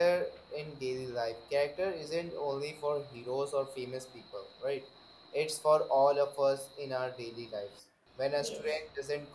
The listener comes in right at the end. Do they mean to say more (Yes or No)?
No